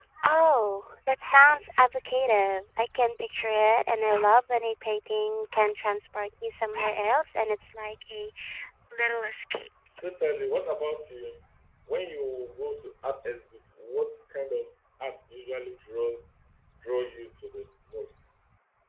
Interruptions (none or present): none